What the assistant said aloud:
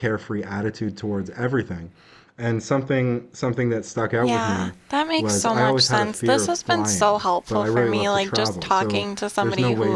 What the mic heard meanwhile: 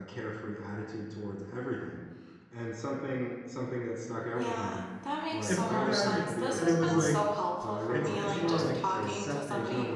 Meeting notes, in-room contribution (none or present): present